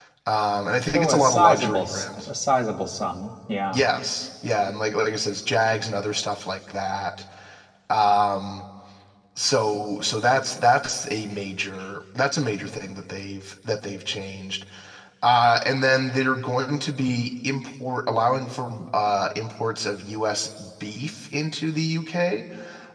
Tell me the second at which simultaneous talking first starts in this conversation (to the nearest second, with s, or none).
1 s